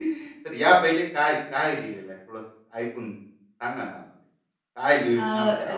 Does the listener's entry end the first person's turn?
No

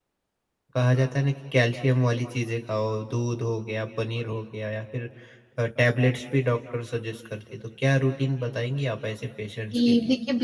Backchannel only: No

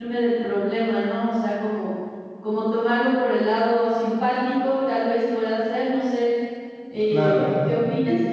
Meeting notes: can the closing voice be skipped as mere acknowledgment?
No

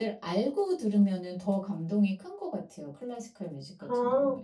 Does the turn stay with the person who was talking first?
No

